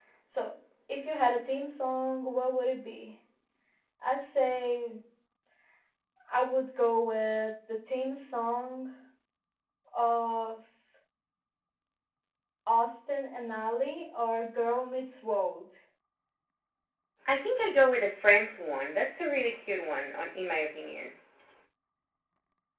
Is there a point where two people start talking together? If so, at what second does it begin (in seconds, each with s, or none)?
none